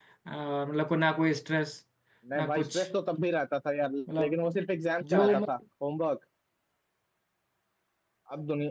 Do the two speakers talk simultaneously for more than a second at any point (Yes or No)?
No